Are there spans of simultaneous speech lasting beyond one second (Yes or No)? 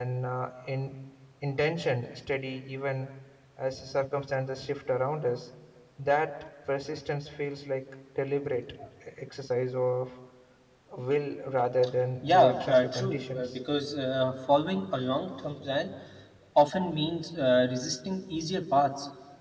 Yes